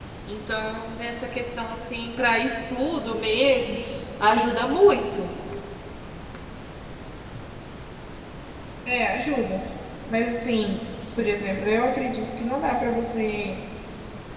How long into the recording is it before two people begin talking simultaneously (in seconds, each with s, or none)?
none